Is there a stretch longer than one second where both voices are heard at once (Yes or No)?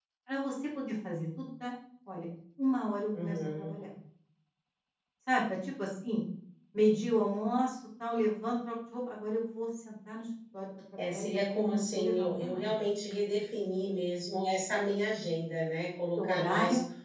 Yes